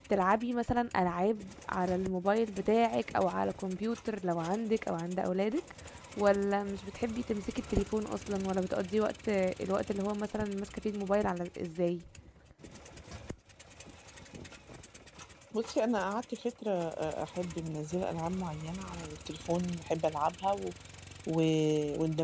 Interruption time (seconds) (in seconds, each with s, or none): none